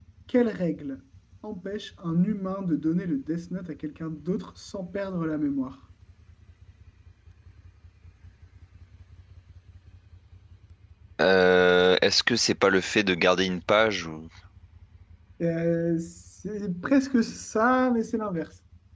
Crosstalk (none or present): none